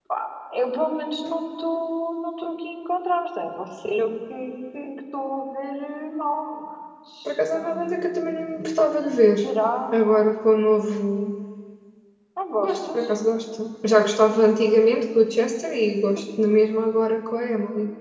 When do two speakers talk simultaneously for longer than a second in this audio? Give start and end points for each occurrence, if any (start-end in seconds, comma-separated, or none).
7.2-8.6